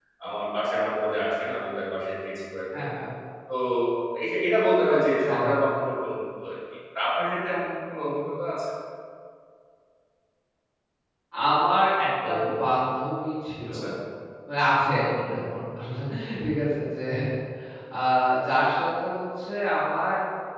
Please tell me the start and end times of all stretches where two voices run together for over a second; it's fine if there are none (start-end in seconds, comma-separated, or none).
none